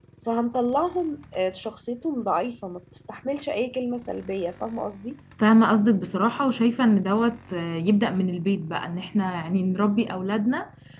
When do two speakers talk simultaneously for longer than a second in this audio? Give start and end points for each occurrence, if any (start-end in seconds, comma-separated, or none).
none